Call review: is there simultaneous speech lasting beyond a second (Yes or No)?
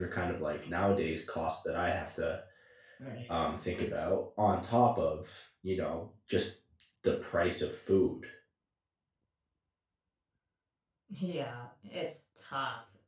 No